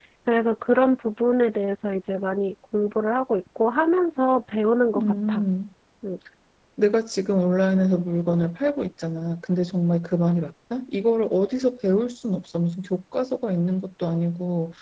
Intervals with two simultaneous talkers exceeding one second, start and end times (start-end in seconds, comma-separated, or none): none